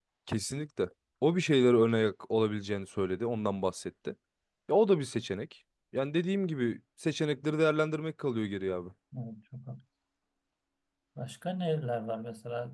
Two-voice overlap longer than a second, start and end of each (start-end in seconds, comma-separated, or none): none